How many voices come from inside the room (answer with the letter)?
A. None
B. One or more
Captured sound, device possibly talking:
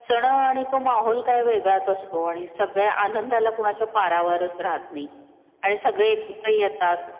A